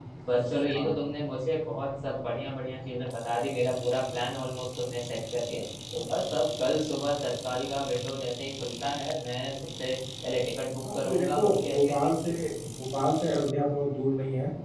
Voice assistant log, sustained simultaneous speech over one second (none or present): present